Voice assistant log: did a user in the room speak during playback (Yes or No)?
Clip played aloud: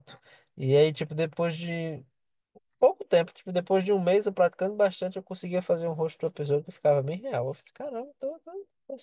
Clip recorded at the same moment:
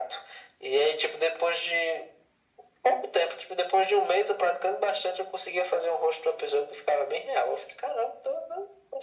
No